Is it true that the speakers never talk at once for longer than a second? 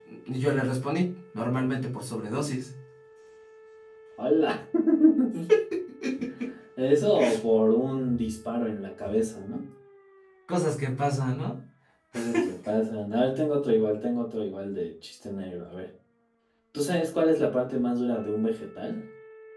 Yes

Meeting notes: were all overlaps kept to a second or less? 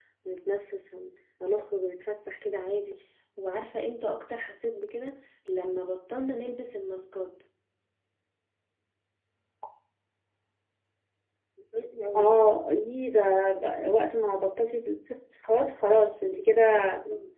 Yes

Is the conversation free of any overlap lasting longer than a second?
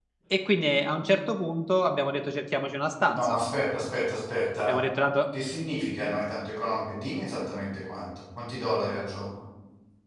Yes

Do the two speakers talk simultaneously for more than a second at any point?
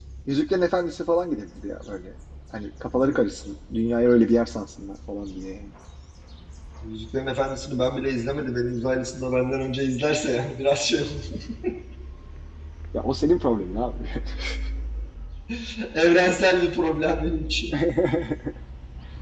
No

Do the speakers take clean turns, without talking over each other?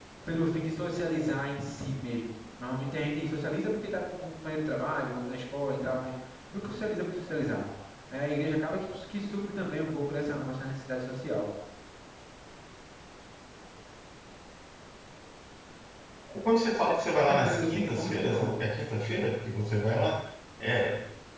No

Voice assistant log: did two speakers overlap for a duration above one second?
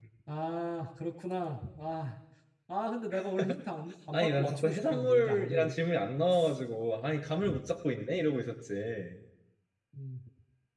Yes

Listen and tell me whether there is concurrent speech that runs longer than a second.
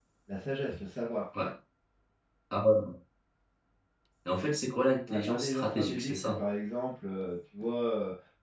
Yes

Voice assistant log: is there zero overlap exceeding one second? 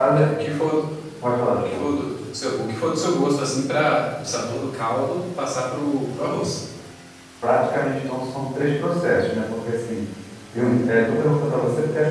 Yes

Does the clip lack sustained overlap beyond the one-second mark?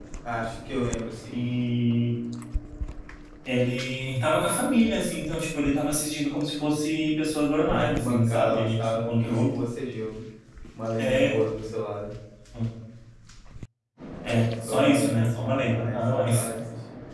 No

